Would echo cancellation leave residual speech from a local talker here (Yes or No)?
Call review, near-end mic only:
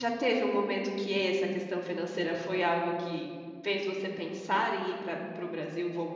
Yes